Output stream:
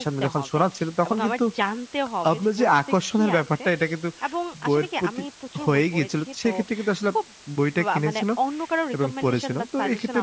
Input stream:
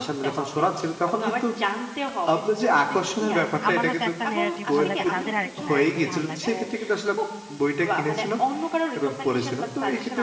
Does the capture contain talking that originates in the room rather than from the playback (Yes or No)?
Yes